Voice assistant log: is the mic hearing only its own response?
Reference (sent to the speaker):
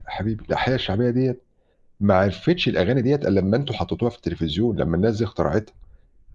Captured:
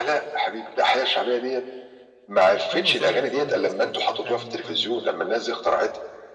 No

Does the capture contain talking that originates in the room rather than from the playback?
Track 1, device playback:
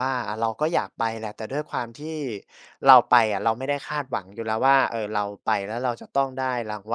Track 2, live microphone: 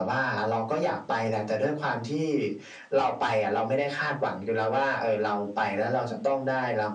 No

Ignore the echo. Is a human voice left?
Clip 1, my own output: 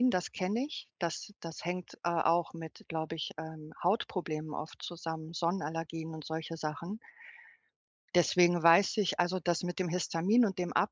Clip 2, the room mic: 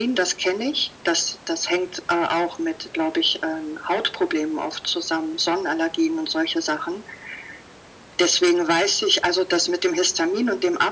No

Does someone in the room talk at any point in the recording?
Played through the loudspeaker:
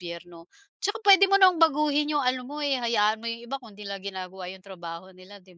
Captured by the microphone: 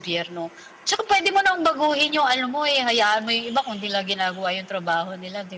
No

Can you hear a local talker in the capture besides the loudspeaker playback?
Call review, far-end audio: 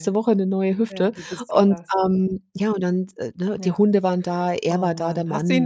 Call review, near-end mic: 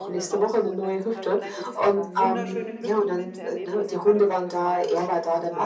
Yes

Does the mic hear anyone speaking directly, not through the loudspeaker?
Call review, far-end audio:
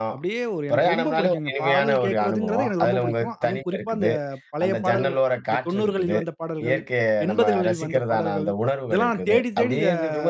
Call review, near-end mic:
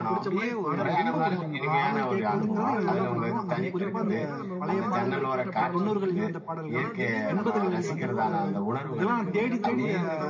Yes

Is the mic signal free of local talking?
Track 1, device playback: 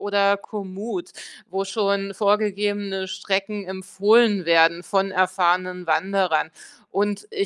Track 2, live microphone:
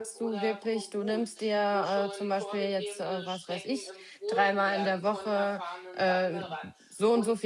No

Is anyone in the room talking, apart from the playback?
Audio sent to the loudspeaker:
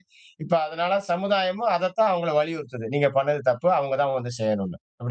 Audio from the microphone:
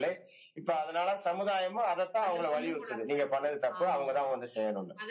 Yes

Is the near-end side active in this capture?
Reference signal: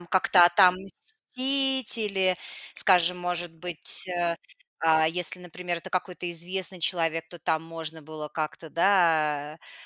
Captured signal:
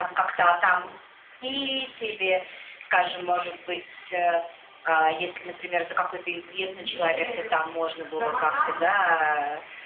Yes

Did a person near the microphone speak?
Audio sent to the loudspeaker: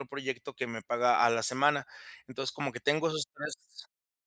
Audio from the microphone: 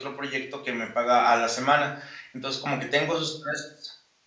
No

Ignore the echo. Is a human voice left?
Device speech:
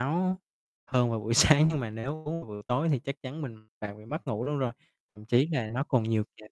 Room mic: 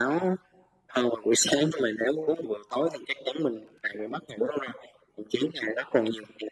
No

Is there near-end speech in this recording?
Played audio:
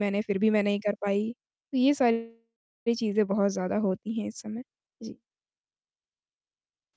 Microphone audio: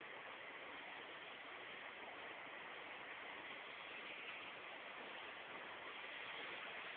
No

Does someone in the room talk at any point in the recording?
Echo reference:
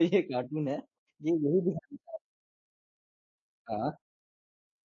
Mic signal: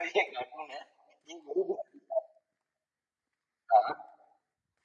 No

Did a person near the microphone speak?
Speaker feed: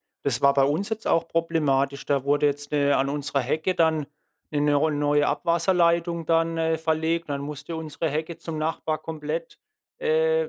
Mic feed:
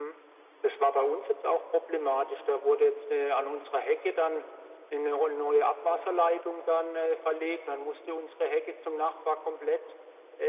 No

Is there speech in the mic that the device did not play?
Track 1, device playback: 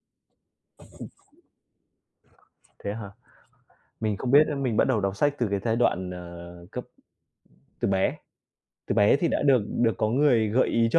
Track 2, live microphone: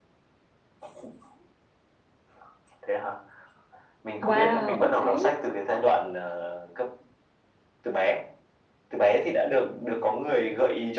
Yes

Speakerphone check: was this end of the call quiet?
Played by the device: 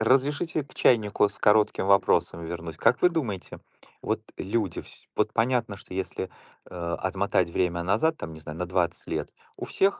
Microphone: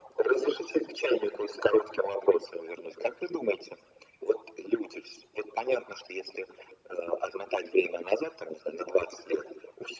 Yes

